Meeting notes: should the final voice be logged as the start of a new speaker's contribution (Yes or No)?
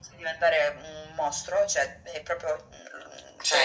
Yes